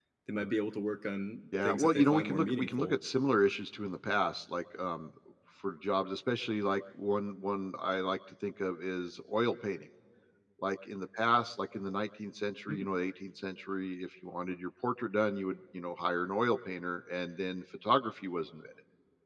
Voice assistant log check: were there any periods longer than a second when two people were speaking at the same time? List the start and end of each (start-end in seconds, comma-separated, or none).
1.6-2.9